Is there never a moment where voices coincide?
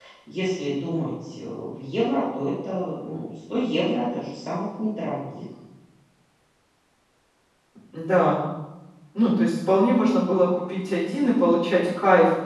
Yes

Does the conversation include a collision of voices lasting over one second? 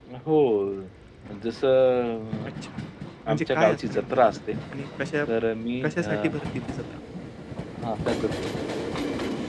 Yes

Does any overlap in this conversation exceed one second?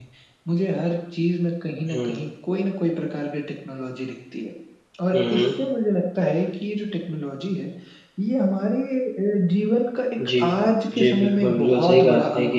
Yes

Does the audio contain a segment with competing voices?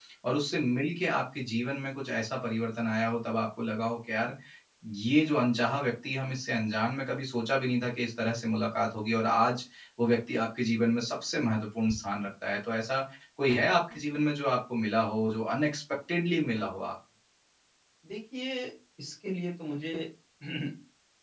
No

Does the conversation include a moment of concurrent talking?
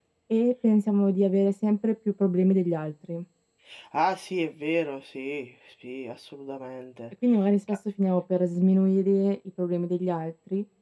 No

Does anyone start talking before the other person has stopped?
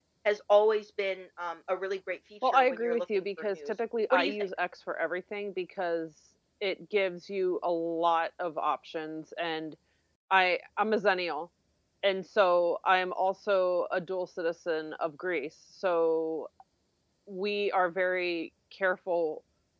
Yes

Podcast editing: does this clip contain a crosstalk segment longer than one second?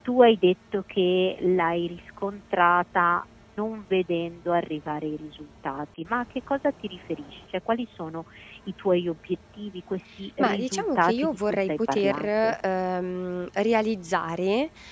Yes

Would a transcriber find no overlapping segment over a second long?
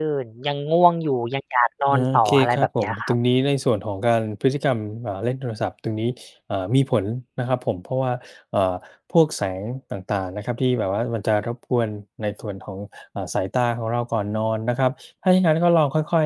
No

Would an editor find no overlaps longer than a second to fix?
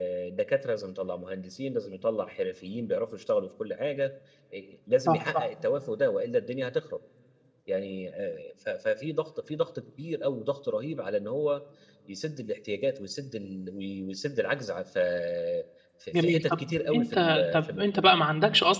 No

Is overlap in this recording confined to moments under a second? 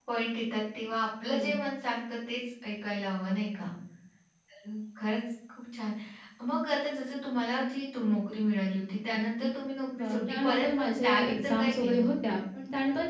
No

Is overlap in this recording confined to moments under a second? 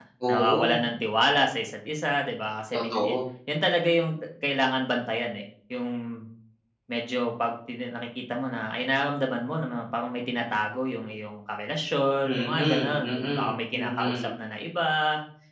No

